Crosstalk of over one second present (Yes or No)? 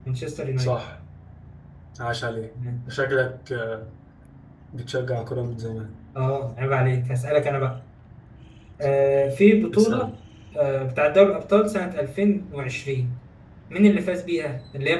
No